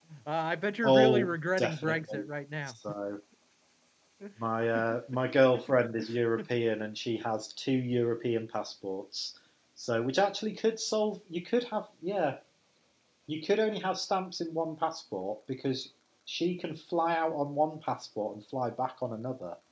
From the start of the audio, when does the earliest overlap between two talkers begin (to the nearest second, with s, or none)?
1 s